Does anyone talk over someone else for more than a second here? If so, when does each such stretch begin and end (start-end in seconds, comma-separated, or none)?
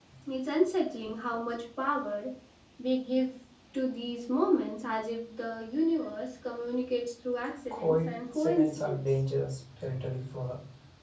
7.7-9.1